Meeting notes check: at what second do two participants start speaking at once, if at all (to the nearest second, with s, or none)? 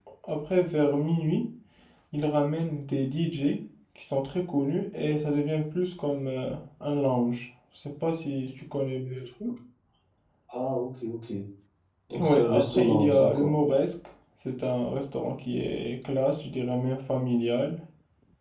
12 s